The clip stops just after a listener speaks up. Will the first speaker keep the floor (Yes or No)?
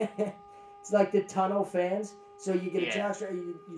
Yes